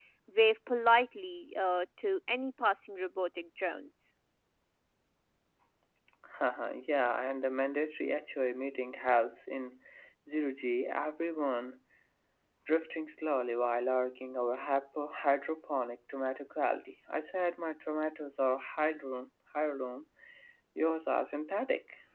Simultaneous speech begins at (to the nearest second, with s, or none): none